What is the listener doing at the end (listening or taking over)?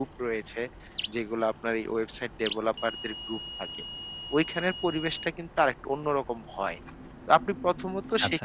listening